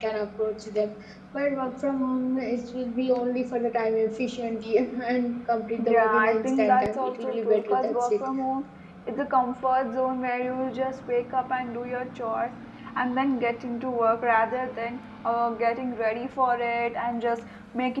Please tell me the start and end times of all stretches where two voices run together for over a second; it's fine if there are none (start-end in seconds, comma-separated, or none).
5.8-8.1